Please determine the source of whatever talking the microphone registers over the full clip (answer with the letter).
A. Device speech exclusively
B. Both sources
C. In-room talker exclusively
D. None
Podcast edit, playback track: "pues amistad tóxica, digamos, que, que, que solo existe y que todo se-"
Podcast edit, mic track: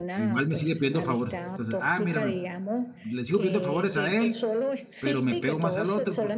B